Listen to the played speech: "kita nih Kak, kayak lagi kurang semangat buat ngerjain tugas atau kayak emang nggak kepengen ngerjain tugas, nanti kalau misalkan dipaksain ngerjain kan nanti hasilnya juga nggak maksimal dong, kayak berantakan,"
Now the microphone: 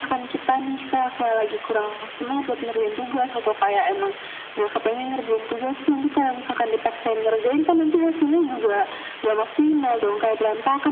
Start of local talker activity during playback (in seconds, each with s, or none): none